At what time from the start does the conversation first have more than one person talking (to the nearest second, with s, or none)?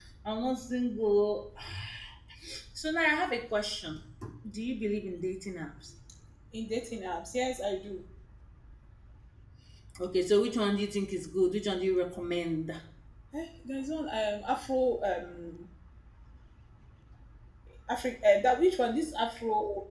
none